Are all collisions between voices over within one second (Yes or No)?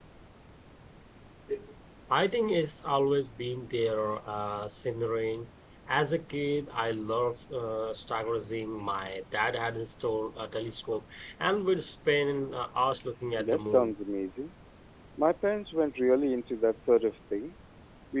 Yes